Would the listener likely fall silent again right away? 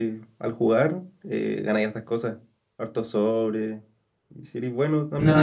Yes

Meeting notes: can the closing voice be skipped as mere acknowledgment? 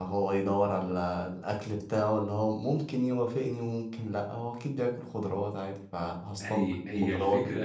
No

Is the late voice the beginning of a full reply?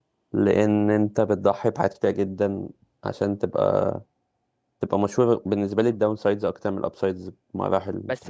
Yes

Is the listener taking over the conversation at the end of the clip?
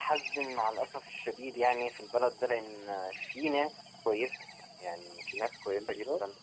No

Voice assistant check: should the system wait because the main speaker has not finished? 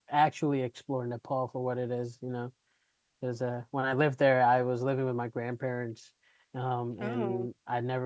Yes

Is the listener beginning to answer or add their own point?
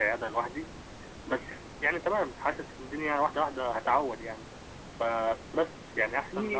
Yes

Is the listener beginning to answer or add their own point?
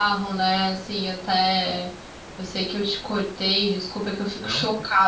No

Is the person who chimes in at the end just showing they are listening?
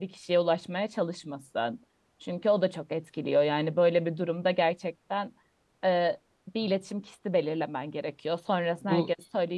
Yes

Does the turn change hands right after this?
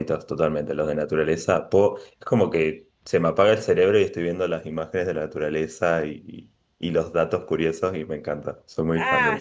Yes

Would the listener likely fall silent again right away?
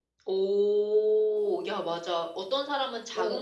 Yes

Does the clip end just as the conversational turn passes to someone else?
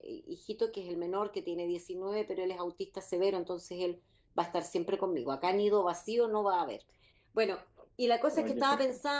No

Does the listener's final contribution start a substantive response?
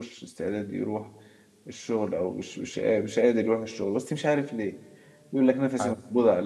No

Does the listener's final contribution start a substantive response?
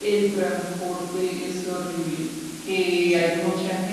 No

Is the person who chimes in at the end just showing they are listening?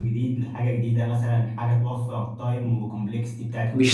No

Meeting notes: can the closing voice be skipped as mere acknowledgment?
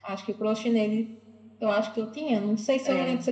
Yes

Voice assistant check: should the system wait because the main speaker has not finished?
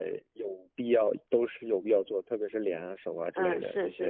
No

